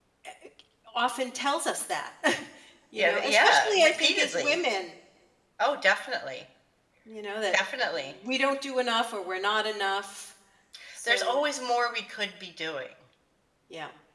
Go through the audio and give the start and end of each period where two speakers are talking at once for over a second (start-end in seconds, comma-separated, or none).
3.0-4.6